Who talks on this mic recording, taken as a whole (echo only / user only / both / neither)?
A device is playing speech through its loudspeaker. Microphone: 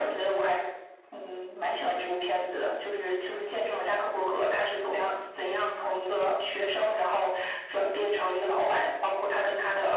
echo only